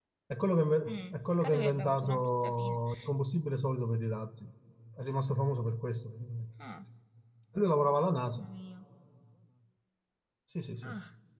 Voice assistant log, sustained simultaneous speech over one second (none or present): present